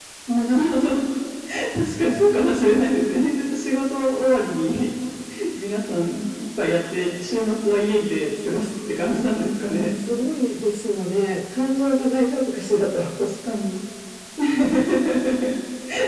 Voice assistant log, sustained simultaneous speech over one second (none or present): none